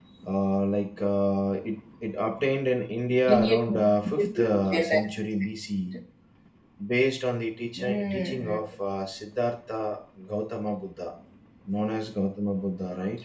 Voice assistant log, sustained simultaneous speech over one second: present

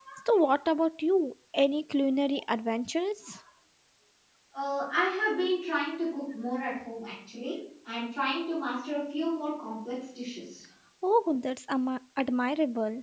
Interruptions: none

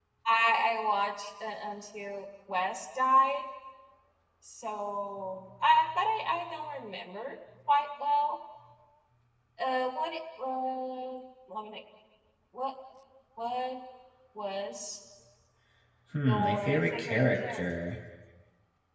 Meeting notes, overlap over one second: present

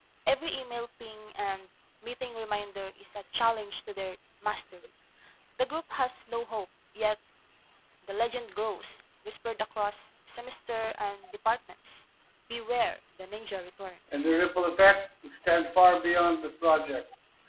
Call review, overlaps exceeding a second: none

